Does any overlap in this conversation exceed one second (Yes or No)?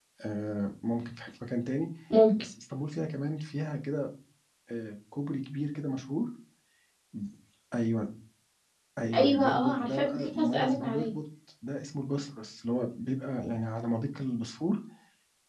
Yes